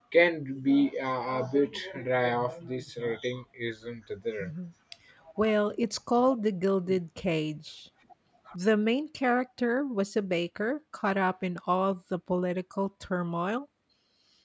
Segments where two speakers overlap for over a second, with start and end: none

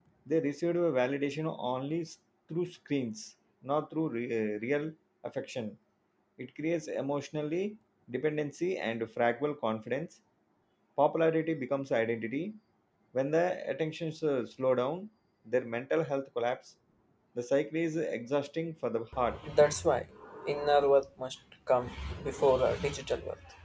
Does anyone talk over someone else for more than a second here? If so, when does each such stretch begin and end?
none

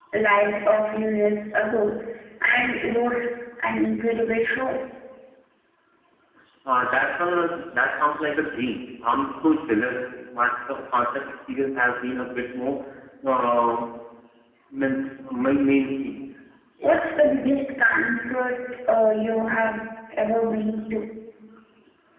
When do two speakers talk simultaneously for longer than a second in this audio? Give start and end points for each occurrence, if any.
none

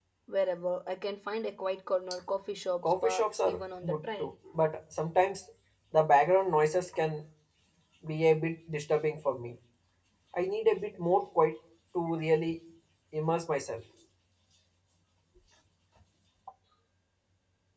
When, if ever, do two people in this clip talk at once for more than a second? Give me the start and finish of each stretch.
2.8-4.3

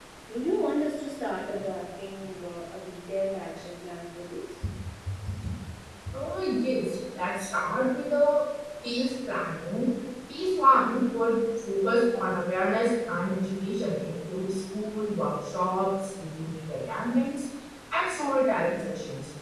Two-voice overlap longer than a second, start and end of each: none

